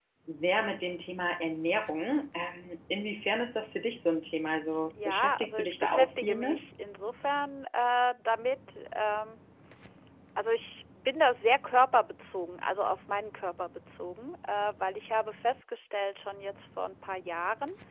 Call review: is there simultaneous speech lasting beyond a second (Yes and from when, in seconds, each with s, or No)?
Yes, from 5.0 s